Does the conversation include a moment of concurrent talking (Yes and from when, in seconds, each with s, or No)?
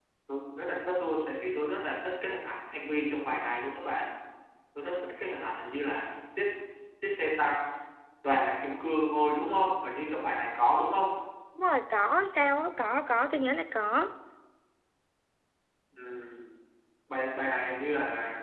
No